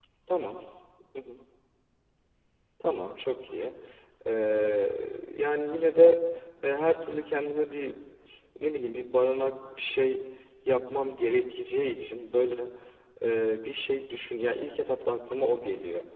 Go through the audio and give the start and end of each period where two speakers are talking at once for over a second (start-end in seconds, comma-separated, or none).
none